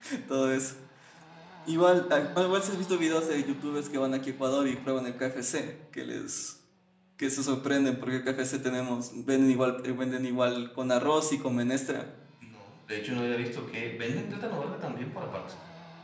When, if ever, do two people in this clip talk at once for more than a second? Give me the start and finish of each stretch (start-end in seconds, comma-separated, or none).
none